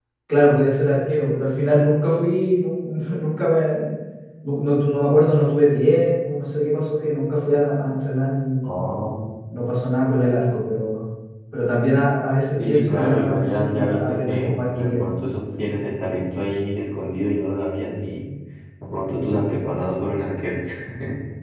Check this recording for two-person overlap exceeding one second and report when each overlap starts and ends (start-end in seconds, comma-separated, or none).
12.6-15.0